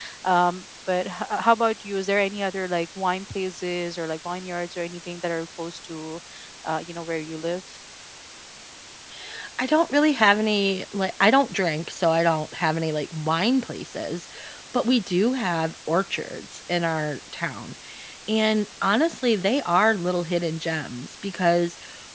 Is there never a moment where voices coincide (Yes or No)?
Yes